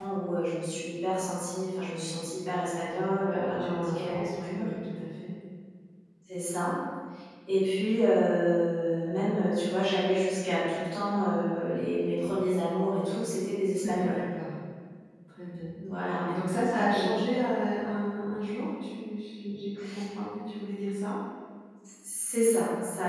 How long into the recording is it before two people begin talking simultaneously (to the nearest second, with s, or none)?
3 s